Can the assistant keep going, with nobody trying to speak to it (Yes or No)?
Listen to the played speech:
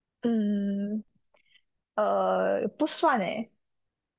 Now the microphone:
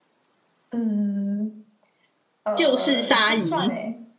No